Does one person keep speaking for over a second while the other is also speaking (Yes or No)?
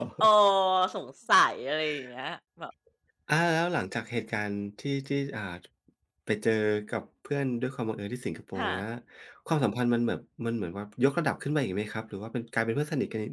No